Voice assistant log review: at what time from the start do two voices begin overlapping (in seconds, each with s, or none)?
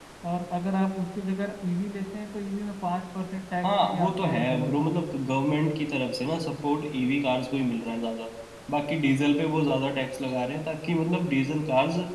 3.6 s